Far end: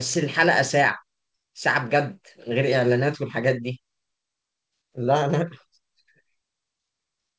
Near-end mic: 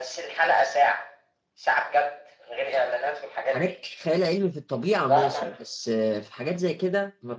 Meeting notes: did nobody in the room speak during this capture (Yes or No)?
No